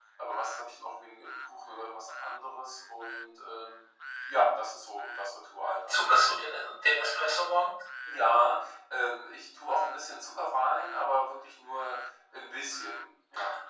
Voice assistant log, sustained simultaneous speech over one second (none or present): none